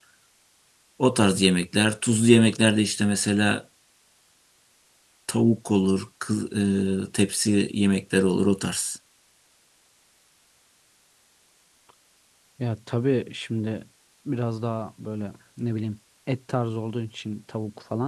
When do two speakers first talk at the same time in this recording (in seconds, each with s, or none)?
none